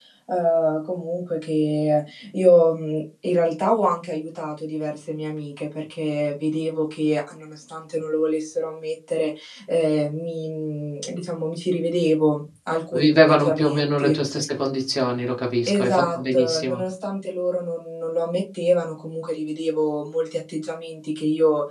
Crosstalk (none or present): present